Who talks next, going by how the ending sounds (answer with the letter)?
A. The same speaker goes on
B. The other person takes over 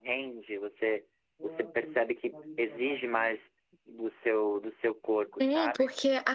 B